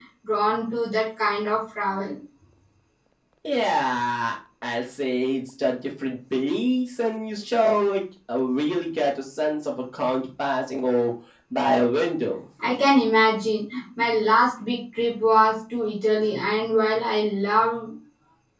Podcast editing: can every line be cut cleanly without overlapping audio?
Yes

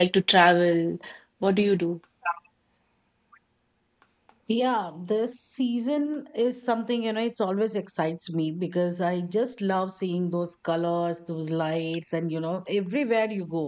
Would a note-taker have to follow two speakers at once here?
No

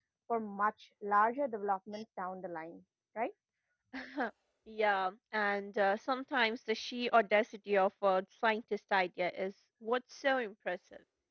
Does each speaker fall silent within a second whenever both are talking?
Yes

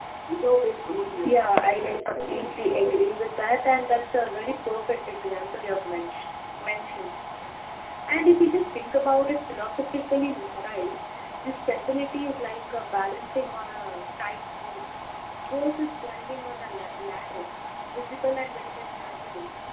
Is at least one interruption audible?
Yes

